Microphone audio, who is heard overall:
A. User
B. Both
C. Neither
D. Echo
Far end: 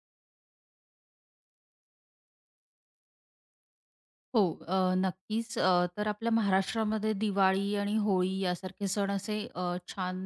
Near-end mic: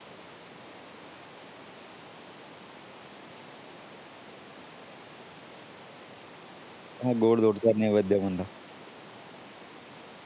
A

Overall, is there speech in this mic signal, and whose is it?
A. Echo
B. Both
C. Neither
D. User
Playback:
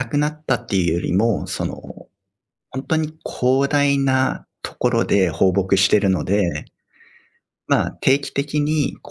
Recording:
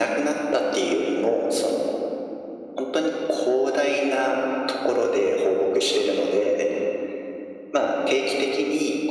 A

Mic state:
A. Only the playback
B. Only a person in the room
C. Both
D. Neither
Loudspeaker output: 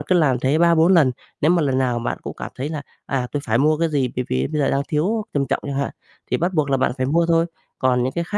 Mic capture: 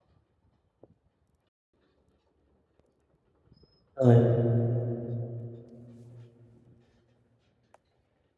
B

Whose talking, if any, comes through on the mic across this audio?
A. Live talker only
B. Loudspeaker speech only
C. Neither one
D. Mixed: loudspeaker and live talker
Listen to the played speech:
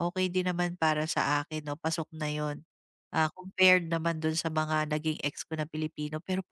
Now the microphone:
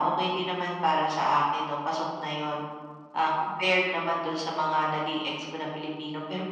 B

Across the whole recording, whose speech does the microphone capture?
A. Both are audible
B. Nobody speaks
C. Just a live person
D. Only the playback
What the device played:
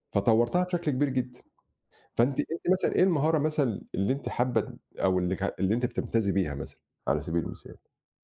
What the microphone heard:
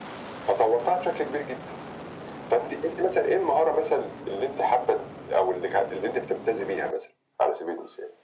D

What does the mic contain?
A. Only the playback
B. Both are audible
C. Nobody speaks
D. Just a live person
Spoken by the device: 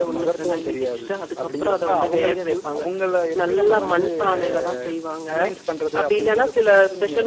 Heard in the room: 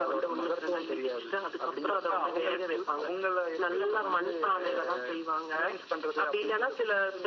A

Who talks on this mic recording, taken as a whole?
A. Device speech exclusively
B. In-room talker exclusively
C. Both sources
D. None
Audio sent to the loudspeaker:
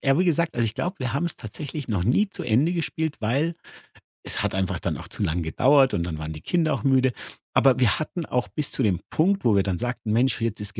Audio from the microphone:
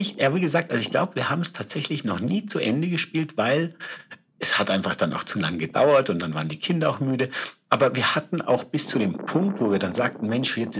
A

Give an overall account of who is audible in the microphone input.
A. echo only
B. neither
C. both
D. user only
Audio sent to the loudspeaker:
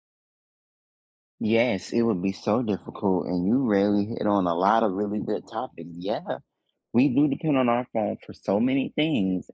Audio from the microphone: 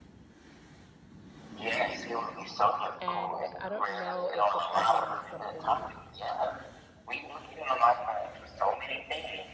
C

